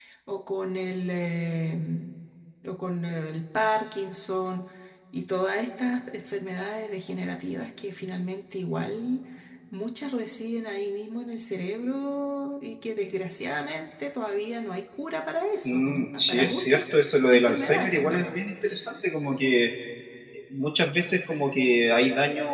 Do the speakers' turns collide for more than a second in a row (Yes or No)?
Yes